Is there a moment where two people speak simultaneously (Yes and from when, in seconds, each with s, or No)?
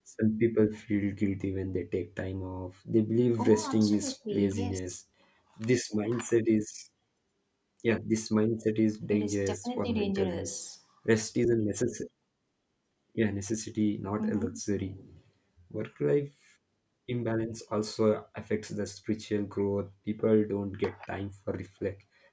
Yes, from 3.4 s